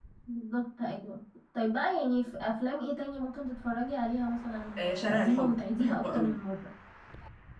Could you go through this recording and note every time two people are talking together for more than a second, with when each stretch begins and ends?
4.8-6.4

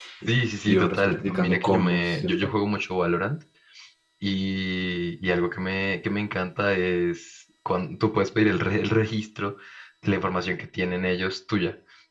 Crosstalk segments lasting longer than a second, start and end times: 0.7-2.3

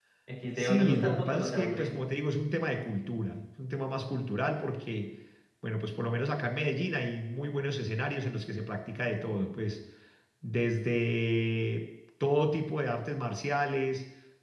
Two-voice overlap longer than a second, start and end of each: 0.6-1.9

